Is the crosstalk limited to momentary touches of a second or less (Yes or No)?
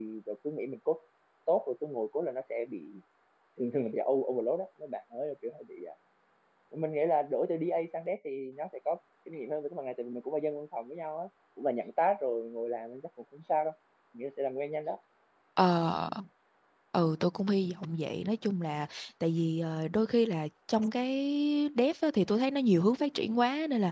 Yes